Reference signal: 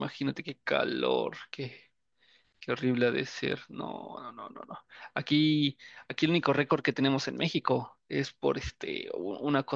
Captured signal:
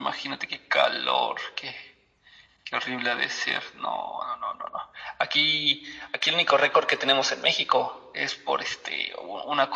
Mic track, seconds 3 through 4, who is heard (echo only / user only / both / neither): echo only